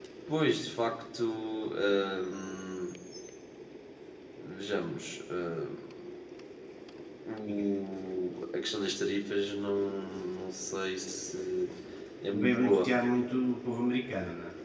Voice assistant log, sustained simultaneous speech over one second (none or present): none